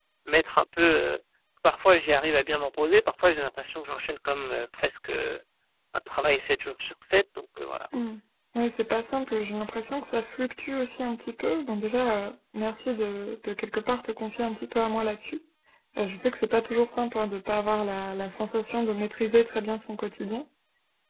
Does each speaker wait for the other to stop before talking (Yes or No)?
Yes